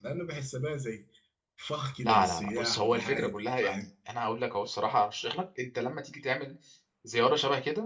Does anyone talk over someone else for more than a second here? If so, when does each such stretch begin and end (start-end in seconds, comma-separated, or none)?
2.0-3.9